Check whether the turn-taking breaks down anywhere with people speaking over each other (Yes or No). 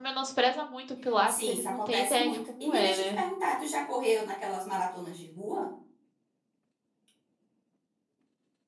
Yes